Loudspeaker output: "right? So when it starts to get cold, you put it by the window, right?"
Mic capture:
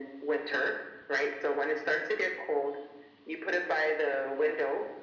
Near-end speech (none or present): none